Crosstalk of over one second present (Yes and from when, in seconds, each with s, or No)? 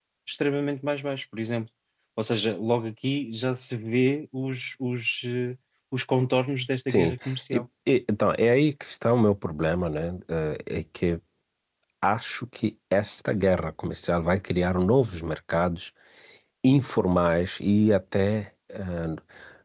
No